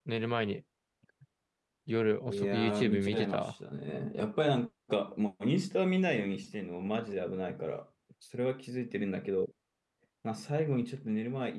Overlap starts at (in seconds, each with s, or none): 2.3 s